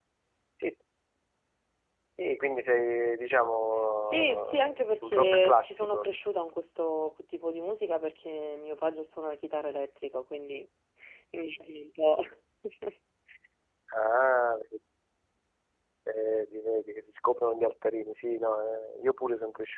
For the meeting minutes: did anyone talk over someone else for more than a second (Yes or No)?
Yes